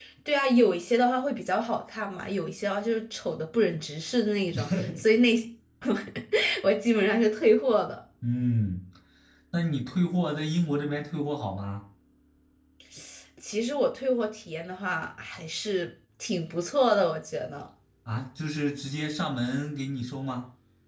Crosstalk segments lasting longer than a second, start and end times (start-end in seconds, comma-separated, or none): none